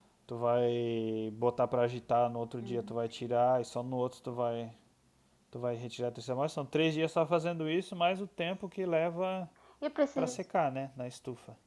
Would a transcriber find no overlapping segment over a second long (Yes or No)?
Yes